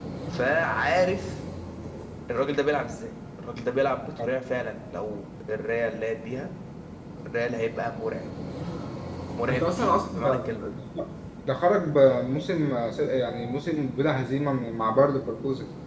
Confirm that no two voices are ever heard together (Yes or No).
No